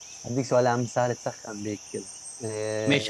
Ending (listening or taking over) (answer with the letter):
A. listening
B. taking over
B